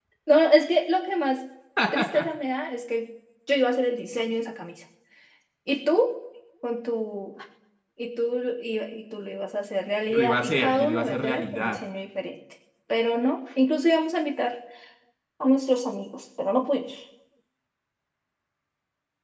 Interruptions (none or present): present